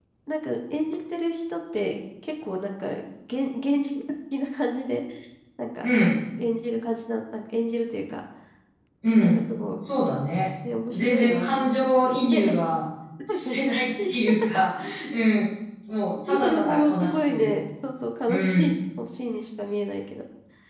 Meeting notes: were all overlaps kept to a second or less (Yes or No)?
No